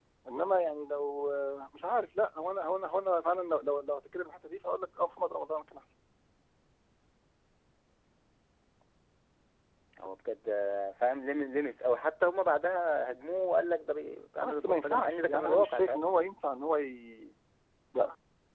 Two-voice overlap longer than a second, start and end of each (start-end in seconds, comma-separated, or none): 14.4-16.0